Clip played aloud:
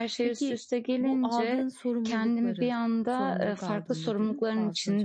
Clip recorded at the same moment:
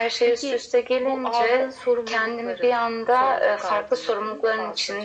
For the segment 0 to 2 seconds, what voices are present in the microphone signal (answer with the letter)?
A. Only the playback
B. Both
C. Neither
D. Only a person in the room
A